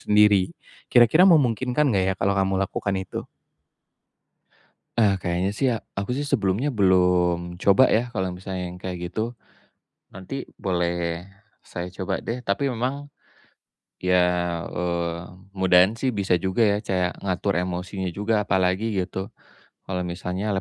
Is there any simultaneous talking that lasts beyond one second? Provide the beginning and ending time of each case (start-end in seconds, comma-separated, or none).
none